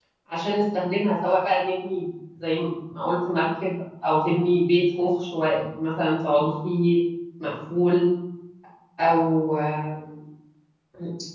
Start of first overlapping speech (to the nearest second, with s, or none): none